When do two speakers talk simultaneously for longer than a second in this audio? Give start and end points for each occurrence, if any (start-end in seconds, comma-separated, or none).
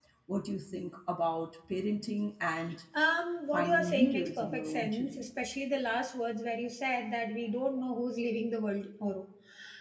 3.5-5.3